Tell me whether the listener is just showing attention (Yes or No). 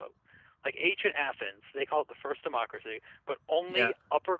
Yes